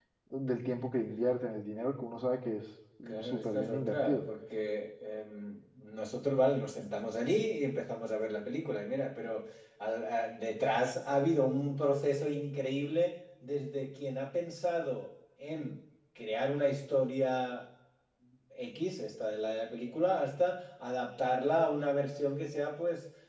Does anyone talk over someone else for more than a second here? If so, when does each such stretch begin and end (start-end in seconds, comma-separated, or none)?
3.1-4.3